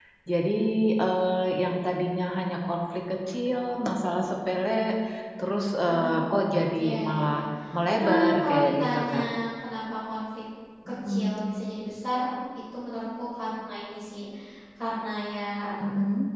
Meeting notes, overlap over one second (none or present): present